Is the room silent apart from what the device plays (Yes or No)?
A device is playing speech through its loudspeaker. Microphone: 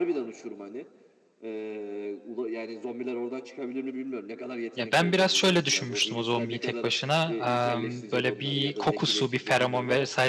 No